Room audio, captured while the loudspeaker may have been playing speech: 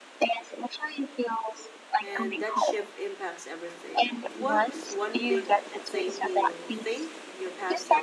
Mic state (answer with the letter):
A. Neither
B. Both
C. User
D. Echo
B